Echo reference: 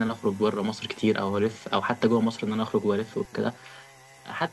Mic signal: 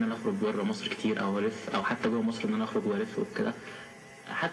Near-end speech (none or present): none